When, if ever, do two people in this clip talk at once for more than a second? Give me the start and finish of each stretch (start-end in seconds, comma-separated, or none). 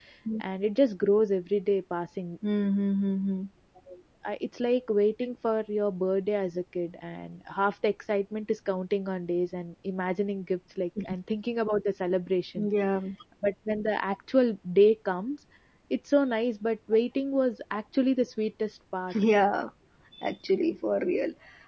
none